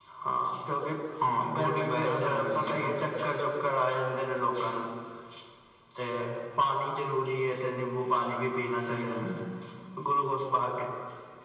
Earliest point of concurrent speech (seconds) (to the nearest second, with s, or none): 2 s